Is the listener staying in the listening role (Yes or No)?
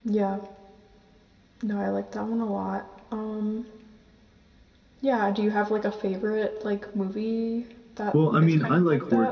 No